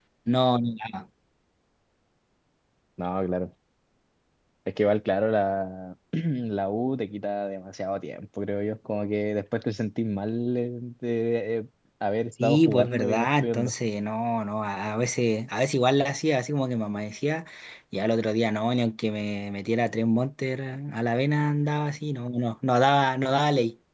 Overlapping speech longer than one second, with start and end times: 12.4-13.7

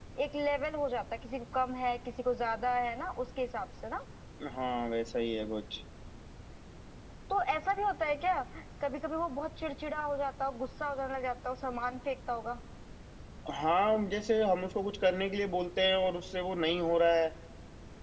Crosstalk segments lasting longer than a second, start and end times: none

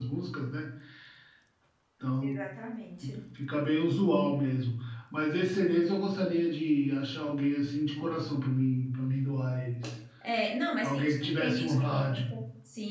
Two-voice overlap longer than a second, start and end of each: 10.8-12.1

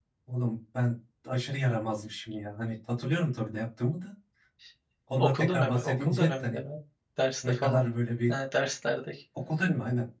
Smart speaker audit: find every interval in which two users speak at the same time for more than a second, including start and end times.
5.2-6.6

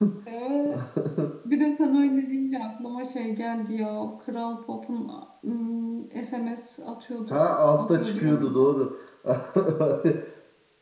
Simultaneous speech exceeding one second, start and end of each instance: 7.3-8.7

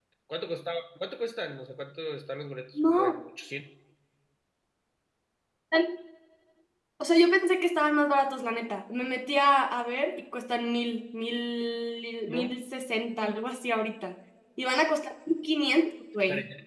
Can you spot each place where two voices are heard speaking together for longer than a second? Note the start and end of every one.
none

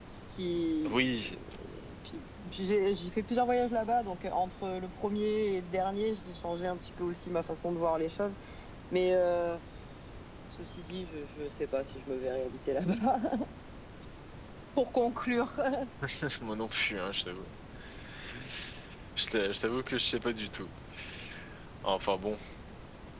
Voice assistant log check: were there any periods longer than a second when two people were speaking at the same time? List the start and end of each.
none

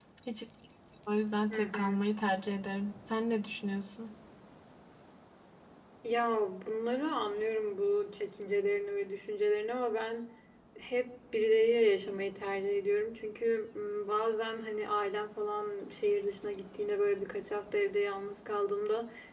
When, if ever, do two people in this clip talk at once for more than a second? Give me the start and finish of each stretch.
none

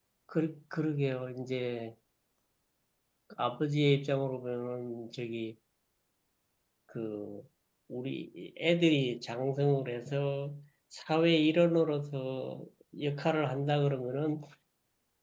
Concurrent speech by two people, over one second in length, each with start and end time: none

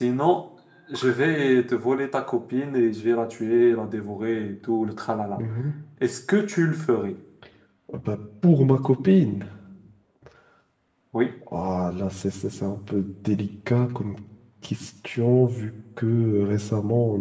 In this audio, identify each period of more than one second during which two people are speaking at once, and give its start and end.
none

